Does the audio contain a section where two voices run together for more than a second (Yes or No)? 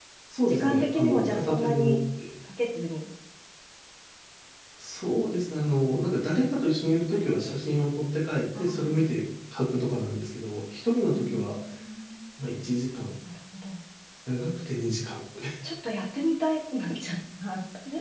Yes